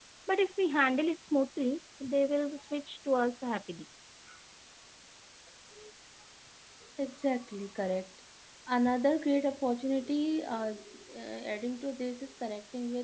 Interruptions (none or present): none